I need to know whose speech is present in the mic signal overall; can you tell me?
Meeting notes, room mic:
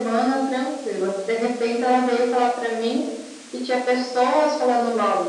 echo only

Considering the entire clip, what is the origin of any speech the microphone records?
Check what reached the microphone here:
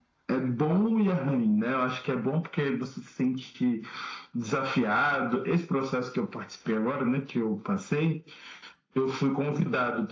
echo only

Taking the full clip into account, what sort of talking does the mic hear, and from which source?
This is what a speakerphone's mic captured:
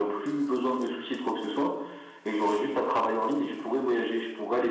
echo only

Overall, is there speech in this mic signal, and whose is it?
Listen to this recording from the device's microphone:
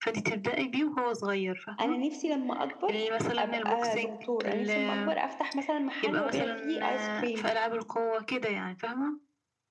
both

